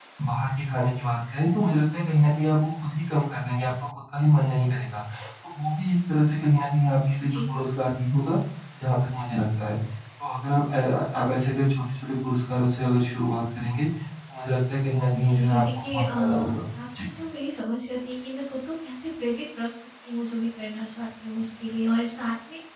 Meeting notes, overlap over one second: present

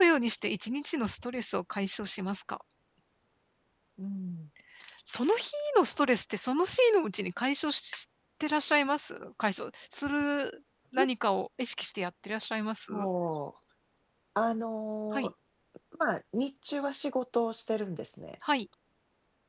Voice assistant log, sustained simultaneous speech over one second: none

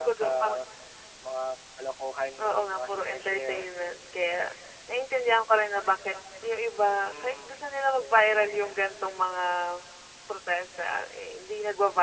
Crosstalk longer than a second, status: present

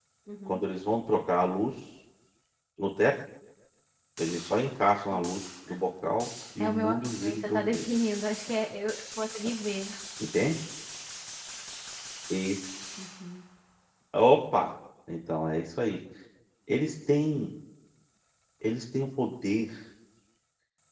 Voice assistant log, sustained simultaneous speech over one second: present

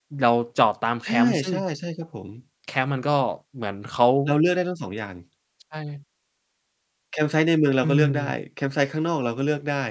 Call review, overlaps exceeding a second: none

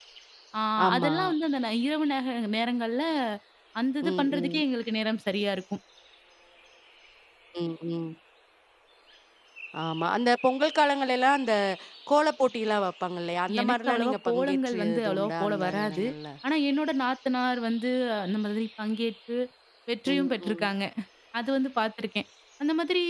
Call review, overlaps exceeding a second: present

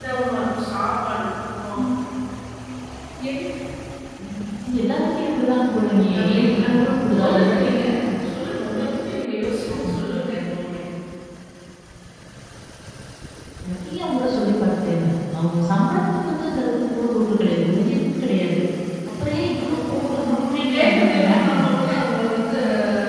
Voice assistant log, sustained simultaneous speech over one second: present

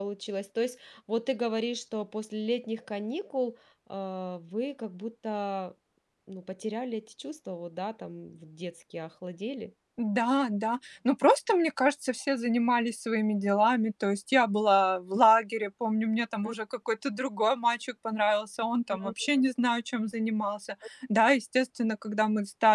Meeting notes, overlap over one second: none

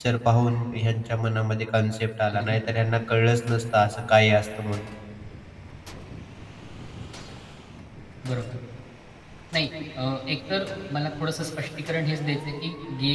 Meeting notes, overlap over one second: none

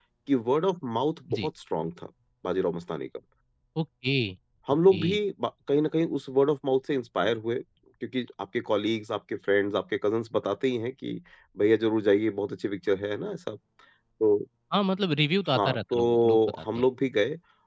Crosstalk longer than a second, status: present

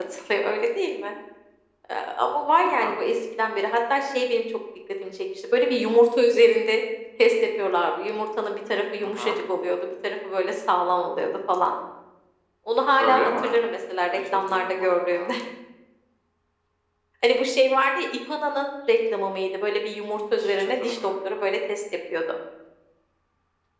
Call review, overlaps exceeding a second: present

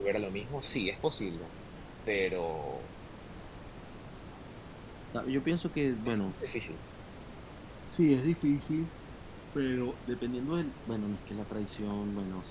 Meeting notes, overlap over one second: none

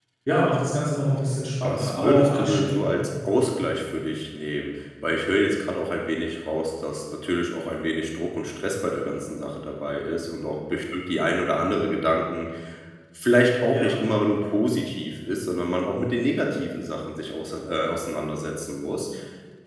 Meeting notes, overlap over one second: present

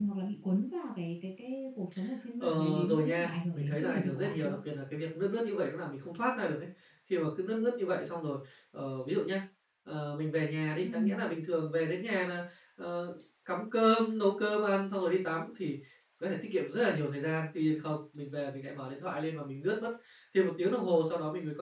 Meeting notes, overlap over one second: present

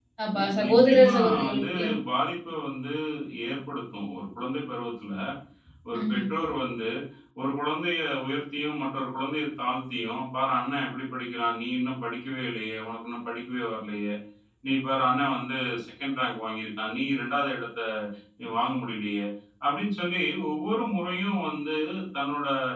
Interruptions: present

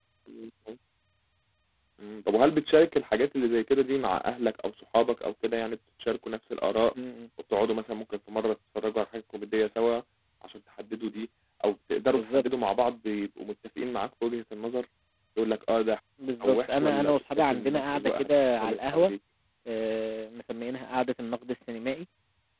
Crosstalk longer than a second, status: present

